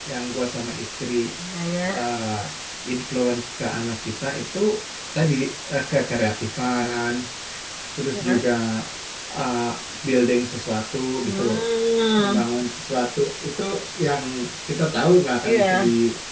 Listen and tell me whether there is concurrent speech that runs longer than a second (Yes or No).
No